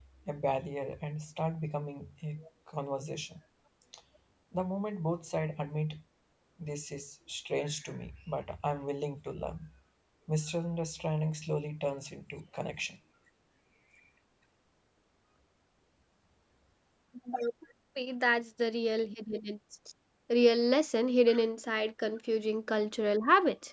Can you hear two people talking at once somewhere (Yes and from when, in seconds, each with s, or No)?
No